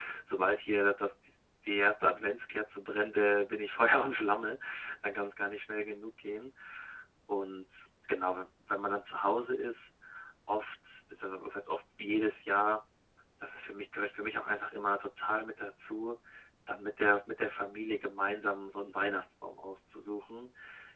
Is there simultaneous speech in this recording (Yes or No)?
No